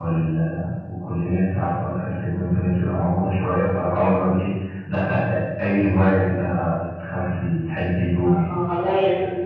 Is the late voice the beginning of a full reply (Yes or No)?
Yes